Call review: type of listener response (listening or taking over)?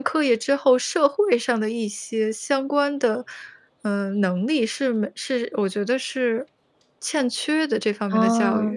taking over